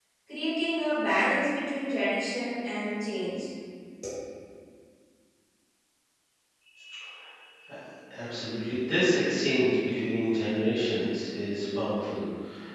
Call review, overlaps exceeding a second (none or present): none